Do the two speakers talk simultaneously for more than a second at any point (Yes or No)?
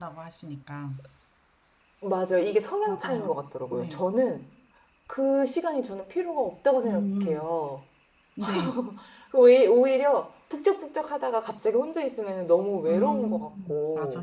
Yes